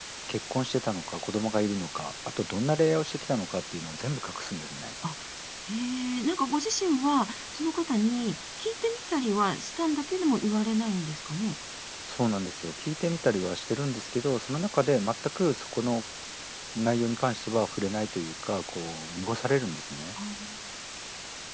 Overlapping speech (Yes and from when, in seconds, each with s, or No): No